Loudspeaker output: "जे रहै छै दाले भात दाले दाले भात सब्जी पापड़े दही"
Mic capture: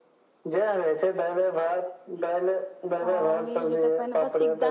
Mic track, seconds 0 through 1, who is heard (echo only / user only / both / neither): echo only